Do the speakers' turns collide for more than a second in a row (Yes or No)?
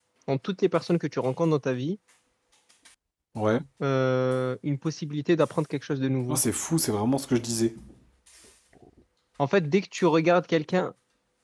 No